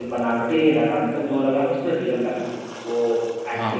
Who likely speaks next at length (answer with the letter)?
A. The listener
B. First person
A